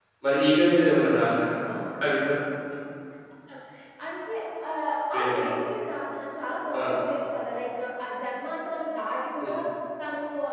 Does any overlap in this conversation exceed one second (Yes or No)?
No